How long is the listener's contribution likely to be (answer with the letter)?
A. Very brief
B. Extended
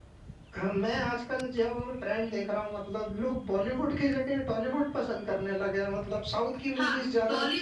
B